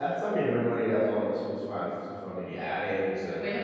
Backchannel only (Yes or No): No